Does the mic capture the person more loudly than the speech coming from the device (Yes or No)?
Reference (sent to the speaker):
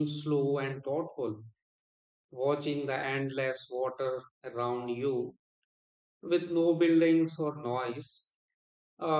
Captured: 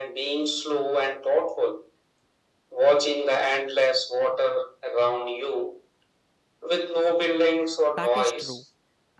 No